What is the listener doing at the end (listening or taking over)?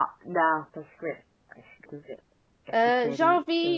taking over